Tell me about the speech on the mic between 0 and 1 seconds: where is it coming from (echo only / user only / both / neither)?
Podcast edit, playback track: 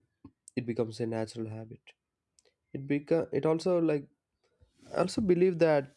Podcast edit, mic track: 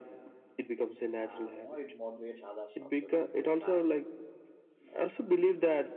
echo only